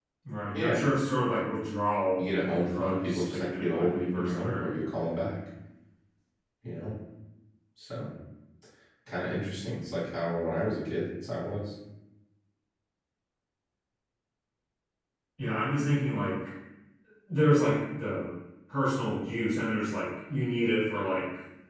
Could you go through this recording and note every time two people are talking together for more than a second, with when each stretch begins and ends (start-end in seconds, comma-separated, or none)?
2.2-4.7